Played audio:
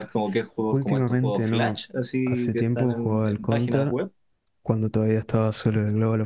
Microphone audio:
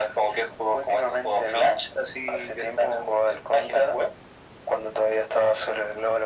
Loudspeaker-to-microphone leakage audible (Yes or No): Yes